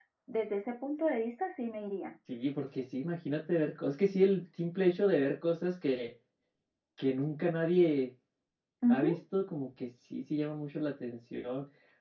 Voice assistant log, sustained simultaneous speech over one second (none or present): none